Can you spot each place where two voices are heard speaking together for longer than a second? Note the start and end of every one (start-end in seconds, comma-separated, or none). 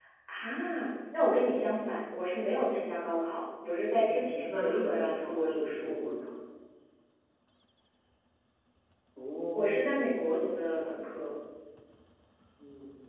4.0-6.0, 9.6-11.1